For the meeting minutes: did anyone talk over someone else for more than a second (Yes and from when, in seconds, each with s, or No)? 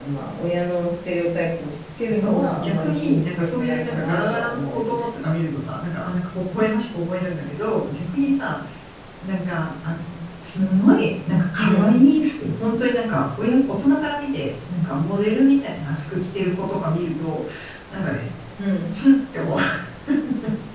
Yes, from 2.1 s